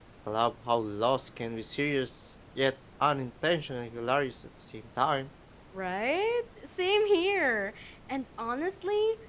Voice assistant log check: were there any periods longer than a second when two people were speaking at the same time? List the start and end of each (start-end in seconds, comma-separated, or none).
none